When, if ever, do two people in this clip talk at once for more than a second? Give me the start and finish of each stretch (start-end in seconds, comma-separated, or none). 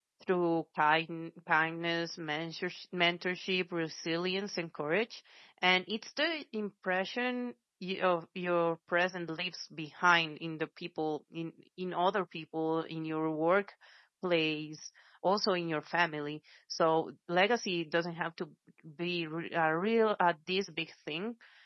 none